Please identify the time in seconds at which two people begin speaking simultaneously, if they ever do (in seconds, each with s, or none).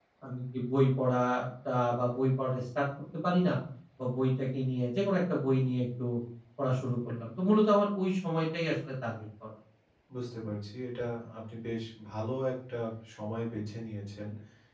none